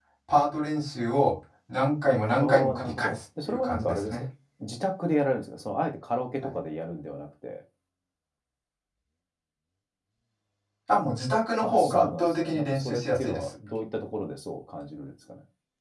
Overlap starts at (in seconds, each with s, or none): 2.4 s